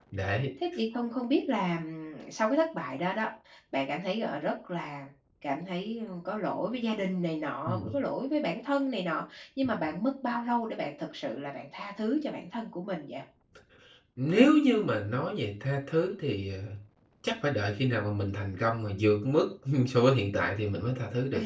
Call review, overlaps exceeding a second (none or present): none